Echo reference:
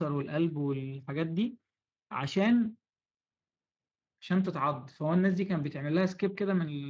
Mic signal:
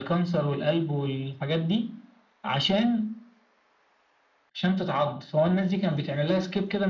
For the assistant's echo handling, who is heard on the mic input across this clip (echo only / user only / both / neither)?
echo only